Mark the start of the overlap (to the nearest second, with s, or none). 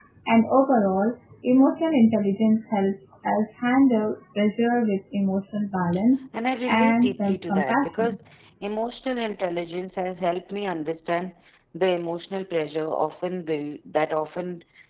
7 s